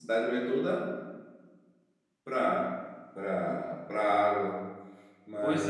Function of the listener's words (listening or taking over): taking over